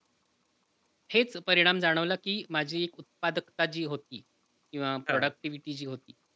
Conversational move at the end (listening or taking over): listening